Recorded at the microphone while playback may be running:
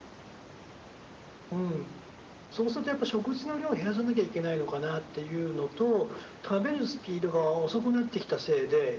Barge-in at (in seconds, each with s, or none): none